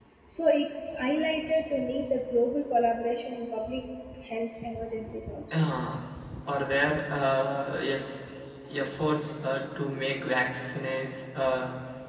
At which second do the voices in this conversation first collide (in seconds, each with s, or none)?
none